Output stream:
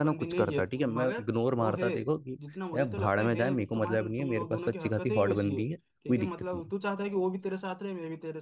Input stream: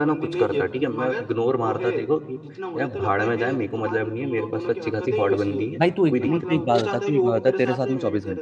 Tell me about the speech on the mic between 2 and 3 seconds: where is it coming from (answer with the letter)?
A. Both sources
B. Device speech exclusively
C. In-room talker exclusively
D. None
B